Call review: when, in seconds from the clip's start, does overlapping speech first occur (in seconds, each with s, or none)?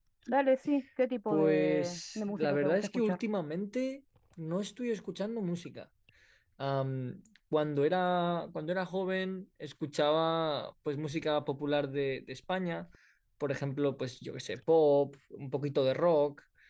1.3 s